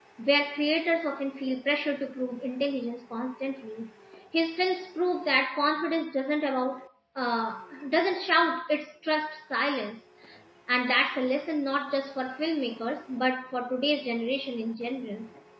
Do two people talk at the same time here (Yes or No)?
No